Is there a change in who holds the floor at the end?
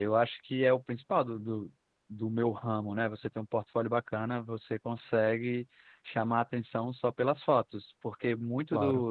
No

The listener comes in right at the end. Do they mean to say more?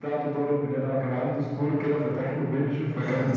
No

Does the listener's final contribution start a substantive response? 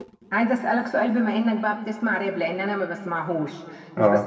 No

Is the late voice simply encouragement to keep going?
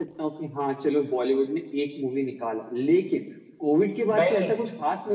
Yes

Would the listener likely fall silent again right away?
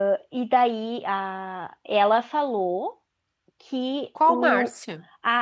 Yes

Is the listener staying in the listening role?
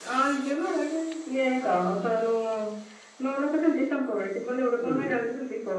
Yes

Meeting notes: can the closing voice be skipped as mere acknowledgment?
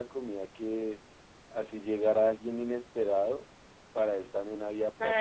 No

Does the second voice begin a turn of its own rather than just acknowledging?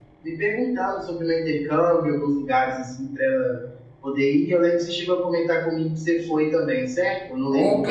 Yes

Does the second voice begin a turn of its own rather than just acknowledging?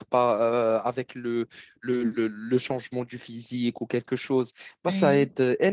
No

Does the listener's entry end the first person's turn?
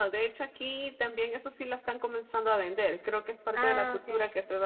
No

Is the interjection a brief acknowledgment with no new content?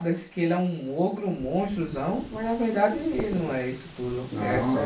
No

